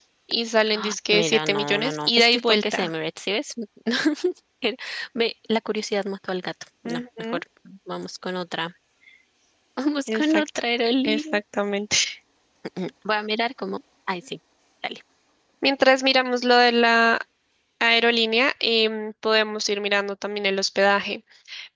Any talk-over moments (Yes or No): Yes